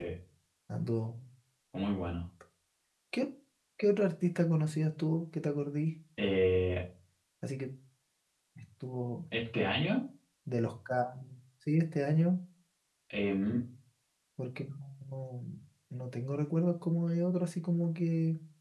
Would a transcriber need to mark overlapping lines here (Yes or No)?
No